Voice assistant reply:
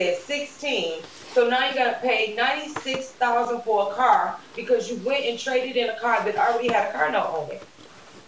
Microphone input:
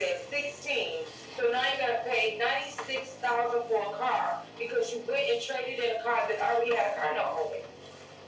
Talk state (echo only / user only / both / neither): echo only